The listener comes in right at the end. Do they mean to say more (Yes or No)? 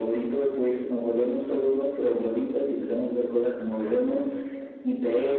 No